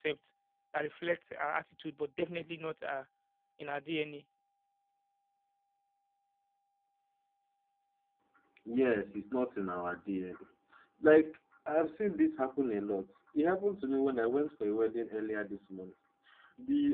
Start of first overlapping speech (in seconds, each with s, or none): none